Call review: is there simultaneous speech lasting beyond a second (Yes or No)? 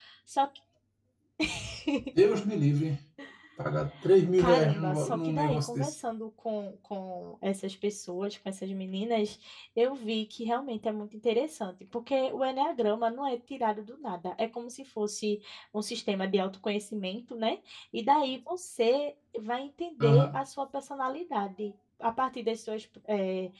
Yes